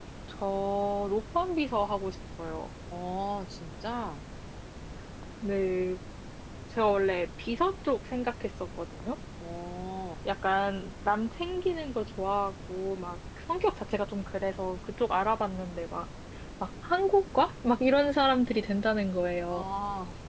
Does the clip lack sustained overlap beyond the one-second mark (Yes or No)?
Yes